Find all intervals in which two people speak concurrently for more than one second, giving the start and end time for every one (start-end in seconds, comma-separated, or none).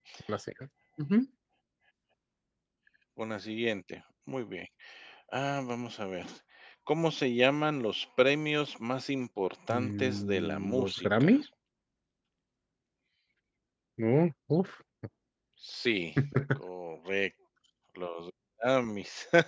9.7-11.4